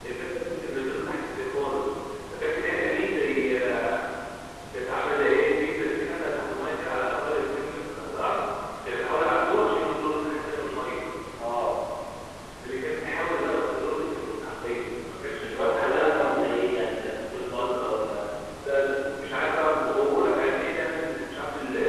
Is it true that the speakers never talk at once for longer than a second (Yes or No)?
No